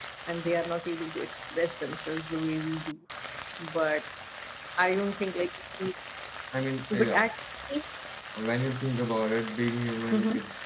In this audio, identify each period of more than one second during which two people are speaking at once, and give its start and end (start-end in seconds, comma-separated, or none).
none